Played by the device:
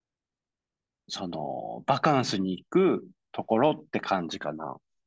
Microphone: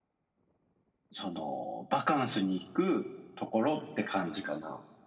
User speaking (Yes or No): No